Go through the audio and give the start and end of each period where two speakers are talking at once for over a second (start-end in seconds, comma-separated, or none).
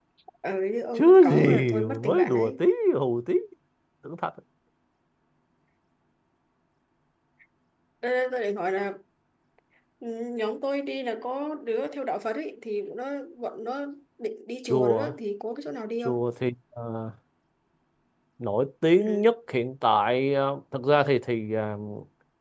1.0-2.6